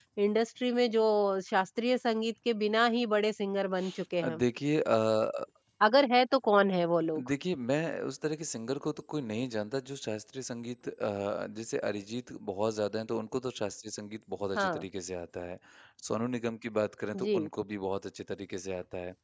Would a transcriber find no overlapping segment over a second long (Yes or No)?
Yes